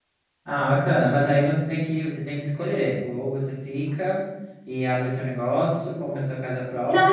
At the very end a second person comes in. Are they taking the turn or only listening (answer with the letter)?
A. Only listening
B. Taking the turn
B